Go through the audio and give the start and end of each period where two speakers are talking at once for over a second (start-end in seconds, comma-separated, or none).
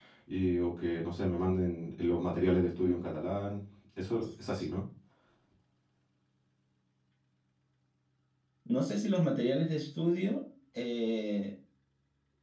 none